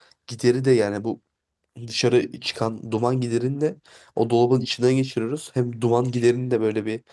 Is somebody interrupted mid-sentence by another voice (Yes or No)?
No